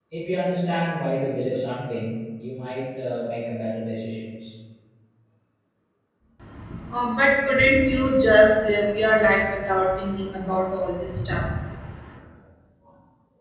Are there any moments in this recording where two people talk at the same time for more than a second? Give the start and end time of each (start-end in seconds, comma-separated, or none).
none